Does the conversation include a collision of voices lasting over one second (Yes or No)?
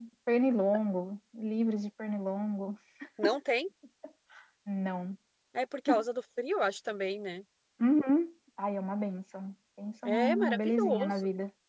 Yes